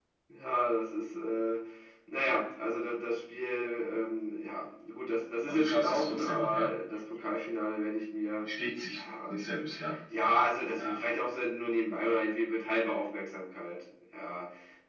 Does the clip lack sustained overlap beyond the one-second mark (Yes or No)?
No